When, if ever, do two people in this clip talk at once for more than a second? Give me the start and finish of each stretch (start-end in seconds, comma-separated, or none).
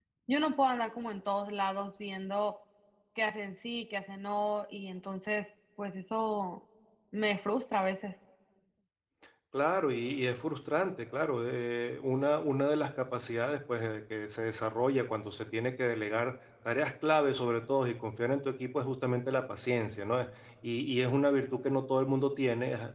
none